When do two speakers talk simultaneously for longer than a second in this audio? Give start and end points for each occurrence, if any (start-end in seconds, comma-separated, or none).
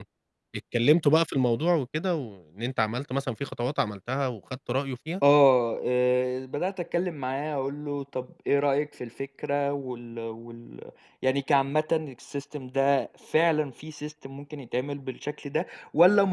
none